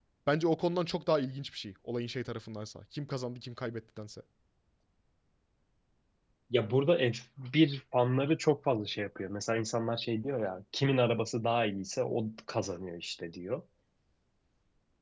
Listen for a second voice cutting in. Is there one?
No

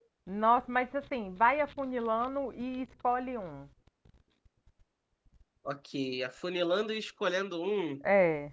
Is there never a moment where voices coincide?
Yes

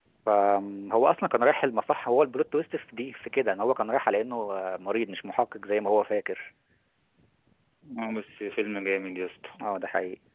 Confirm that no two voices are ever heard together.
Yes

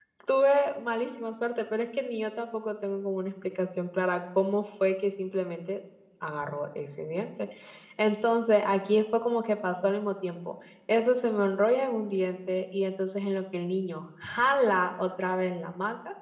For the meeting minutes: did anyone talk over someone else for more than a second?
No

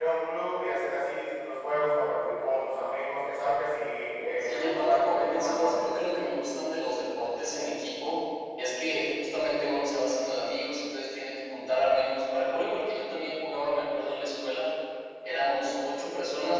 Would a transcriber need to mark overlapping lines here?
Yes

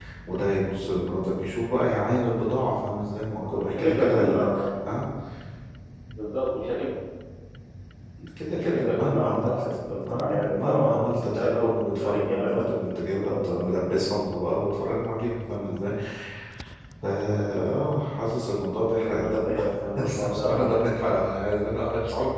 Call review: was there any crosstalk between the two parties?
Yes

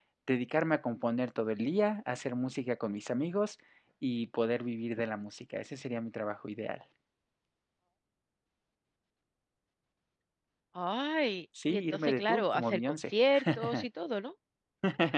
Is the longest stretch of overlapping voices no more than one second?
No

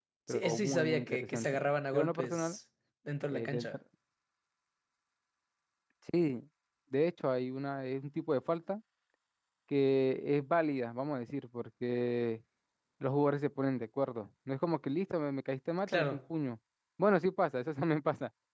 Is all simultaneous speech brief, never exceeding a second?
No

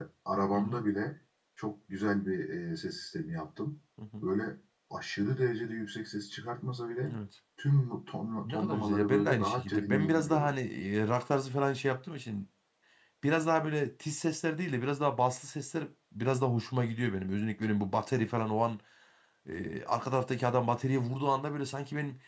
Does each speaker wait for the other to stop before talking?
No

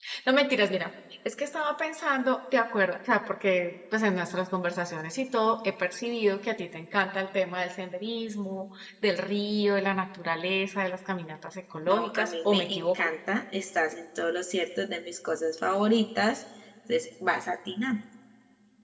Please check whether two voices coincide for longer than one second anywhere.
Yes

